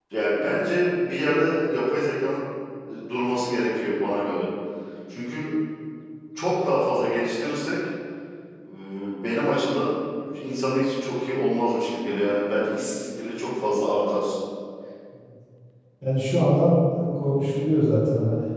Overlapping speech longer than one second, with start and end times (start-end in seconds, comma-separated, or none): none